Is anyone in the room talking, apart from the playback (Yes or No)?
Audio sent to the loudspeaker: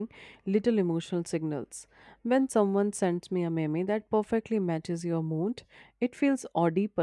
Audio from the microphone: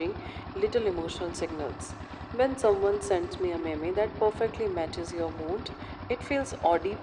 No